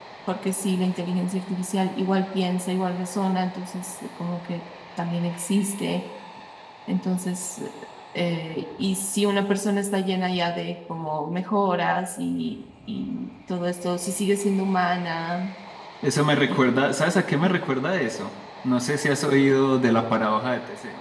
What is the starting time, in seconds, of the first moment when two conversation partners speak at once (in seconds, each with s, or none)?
none